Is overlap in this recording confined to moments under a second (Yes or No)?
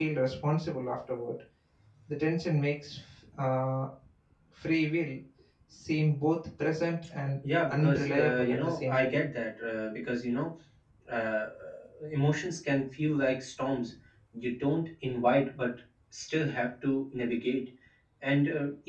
No